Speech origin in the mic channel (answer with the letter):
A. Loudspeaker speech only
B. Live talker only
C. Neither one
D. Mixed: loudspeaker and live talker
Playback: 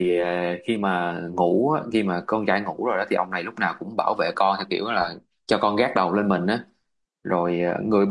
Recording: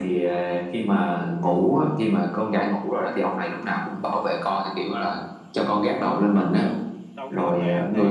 D